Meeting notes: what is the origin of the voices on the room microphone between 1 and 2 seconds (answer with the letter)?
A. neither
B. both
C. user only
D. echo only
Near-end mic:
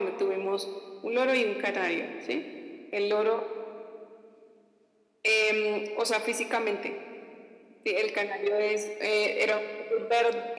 D